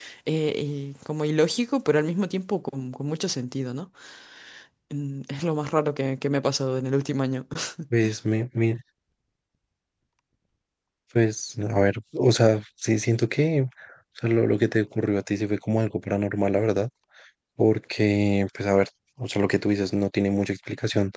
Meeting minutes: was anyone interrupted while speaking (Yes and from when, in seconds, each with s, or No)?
No